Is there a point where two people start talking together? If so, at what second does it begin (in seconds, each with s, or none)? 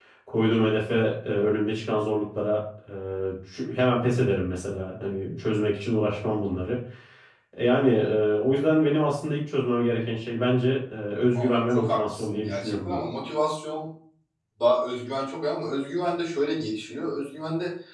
11.3 s